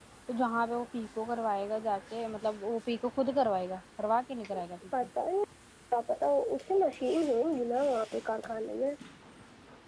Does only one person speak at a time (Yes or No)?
Yes